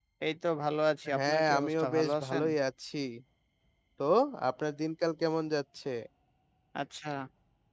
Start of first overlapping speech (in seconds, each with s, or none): 1.2 s